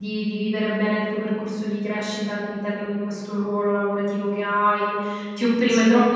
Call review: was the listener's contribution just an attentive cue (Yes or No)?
Yes